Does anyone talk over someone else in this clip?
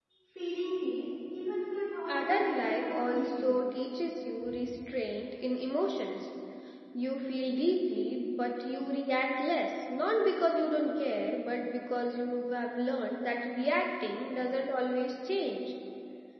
Yes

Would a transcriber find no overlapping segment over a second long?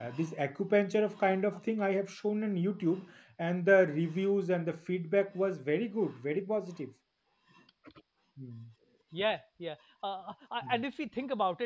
Yes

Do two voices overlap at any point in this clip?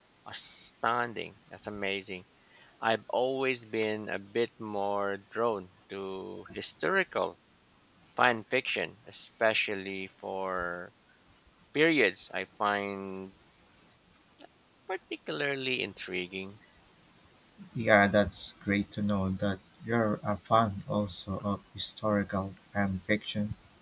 No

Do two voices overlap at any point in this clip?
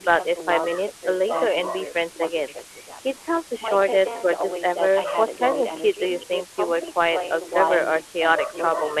Yes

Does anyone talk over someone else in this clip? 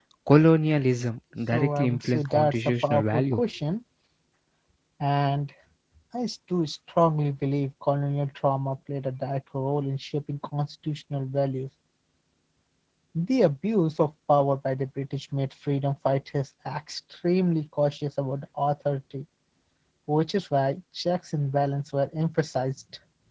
Yes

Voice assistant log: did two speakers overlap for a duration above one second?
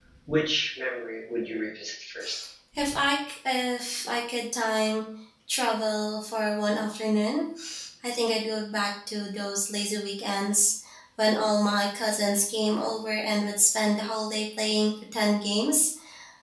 No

